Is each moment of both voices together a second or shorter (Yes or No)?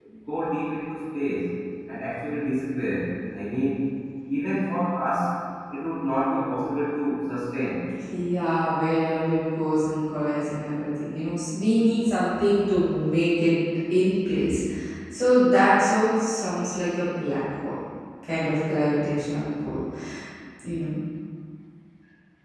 Yes